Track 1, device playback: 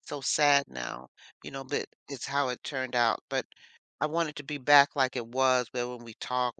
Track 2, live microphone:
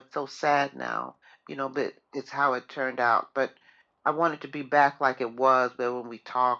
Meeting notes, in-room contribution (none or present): none